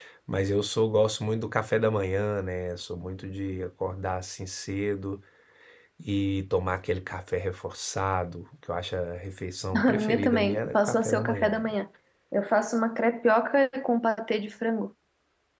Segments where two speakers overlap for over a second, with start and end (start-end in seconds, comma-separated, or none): 9.9-11.8